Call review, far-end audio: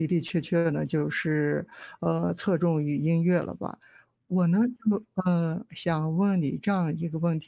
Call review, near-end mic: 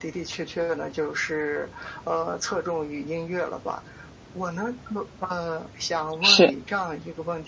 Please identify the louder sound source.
user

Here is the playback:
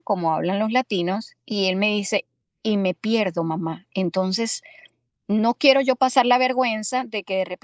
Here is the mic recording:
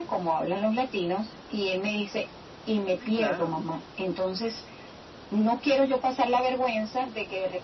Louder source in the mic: echo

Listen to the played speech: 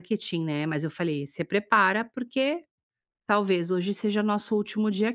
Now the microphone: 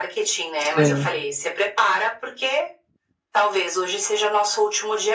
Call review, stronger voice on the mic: user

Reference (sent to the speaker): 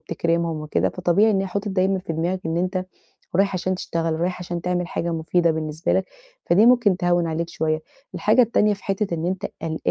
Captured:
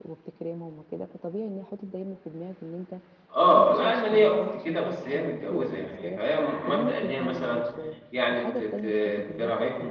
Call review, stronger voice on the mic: user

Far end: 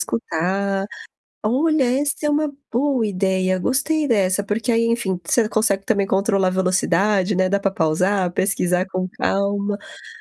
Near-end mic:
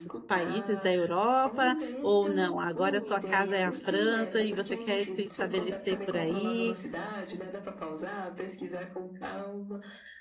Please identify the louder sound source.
user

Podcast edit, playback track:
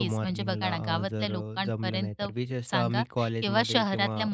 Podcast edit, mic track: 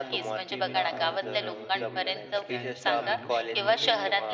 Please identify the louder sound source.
echo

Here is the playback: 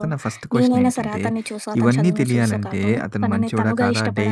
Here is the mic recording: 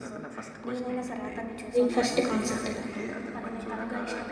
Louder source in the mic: user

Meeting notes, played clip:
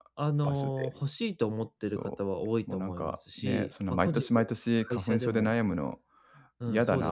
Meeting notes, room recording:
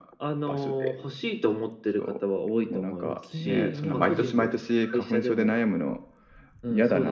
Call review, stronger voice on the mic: echo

